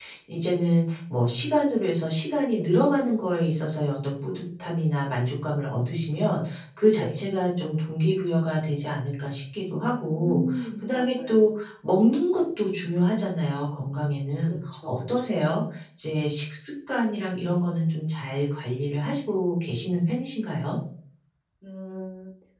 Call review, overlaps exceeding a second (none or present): present